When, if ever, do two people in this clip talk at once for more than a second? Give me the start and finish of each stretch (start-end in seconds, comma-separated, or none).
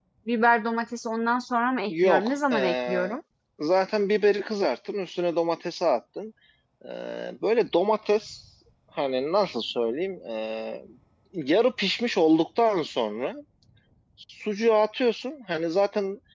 1.9-3.2